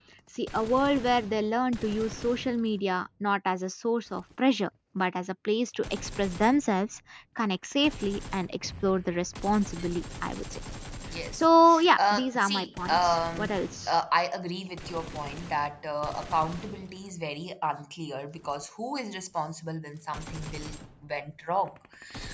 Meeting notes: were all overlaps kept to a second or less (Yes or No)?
No